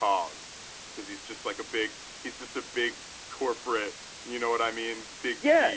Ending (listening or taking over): taking over